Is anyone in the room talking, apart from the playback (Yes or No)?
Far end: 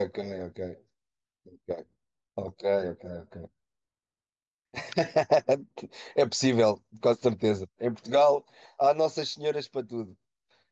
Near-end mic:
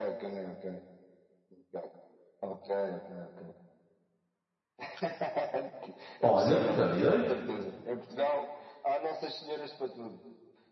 Yes